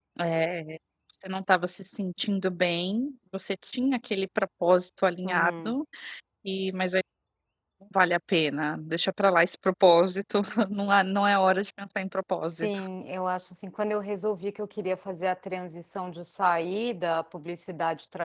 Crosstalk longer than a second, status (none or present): none